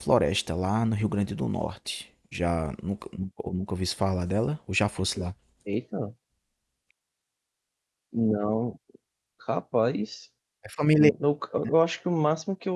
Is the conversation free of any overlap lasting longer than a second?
Yes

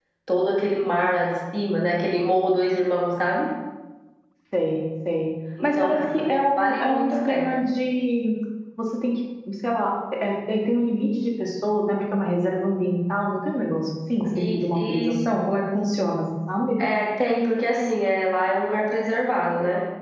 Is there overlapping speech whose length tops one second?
Yes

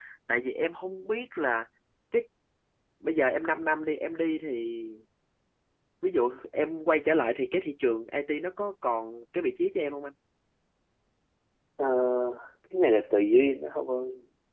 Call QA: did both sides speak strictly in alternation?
Yes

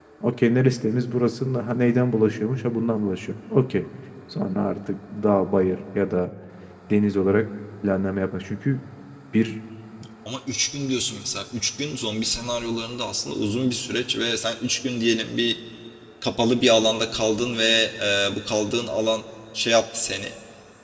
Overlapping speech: No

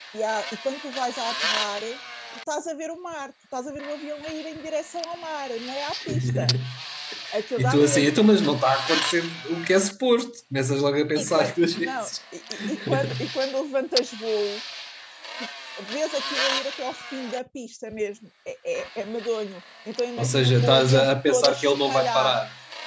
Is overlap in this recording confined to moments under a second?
No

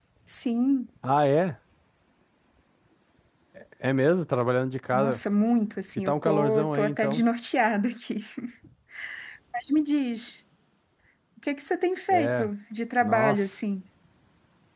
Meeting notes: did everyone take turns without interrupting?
No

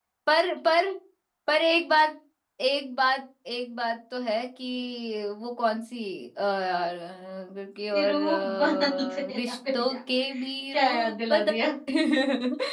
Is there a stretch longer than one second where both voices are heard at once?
Yes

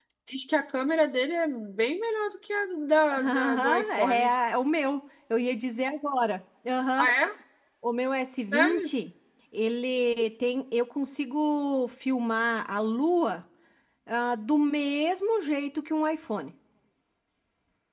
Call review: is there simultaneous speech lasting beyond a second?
Yes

